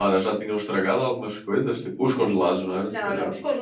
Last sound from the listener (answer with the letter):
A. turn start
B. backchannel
A